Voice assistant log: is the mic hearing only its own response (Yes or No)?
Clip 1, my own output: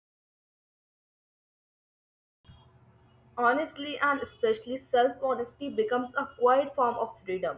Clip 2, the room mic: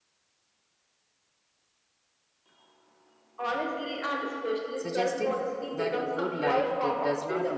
No